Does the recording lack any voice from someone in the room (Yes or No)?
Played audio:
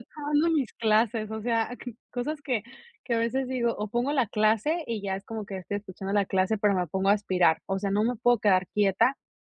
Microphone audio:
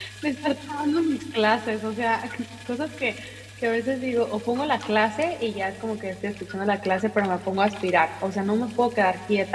Yes